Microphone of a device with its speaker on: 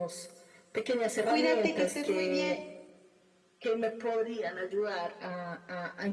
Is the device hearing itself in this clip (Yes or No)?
Yes